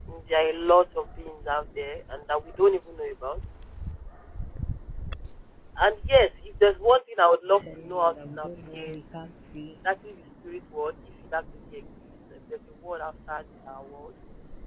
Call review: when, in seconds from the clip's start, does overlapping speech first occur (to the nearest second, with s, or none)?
8 s